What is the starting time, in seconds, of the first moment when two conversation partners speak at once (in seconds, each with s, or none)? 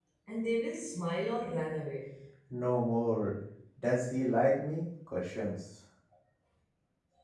none